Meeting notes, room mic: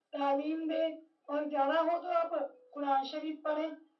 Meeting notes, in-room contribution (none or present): none